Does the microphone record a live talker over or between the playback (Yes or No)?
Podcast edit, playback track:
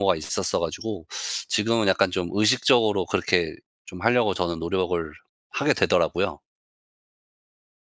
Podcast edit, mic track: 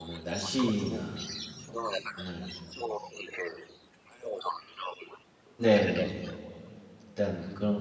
Yes